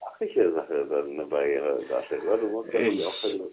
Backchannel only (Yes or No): Yes